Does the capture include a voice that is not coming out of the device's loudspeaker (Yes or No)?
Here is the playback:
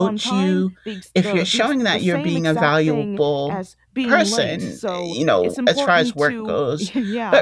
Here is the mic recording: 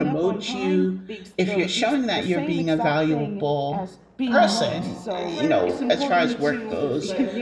Yes